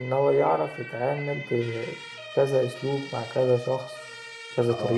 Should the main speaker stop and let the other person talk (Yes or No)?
Yes